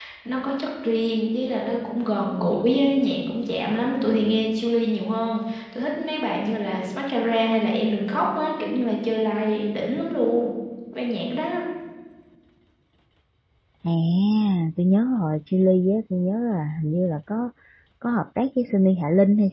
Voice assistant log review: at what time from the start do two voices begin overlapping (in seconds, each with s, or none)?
none